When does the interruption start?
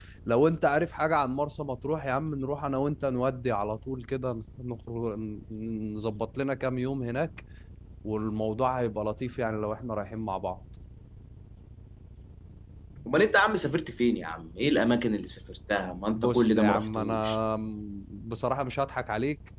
16.2 s

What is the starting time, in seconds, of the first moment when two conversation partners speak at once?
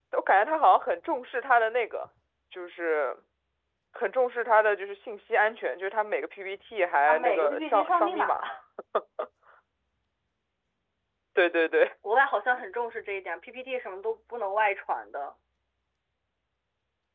7.1 s

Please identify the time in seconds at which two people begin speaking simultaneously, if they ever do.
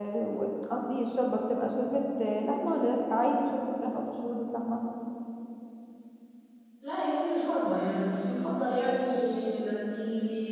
none

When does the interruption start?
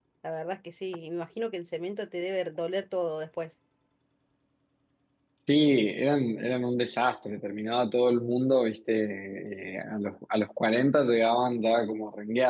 none

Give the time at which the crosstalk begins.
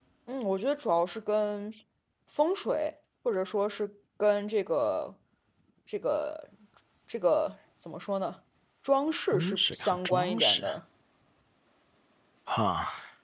9.3 s

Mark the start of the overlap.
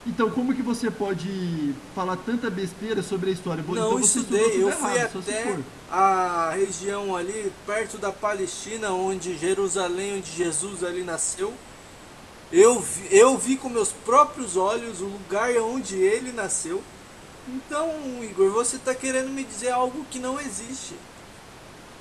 3.7 s

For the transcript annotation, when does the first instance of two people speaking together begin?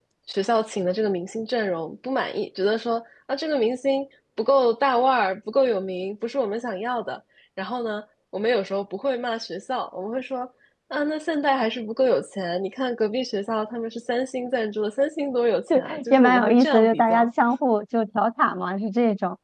15.7 s

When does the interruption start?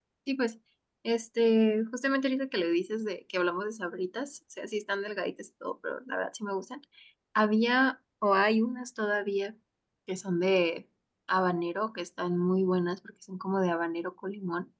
none

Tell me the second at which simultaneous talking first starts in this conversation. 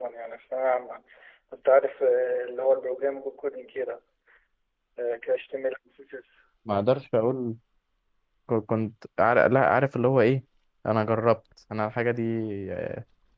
none

